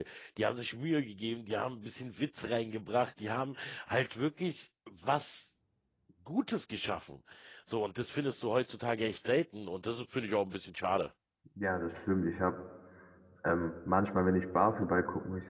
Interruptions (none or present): none